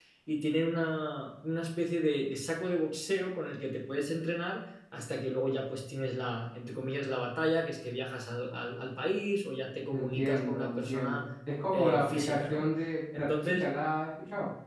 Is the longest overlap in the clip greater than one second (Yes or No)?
Yes